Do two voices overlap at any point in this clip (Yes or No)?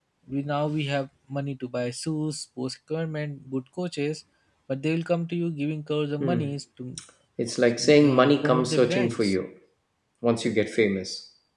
Yes